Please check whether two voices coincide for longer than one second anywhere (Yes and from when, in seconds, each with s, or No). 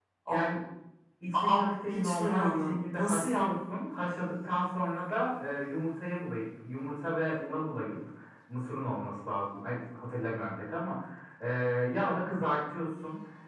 Yes, from 1.3 s